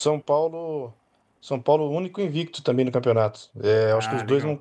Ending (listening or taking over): listening